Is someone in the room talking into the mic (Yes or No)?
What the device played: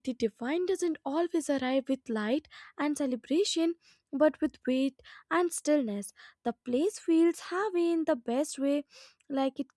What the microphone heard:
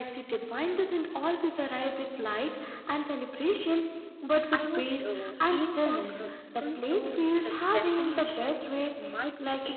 Yes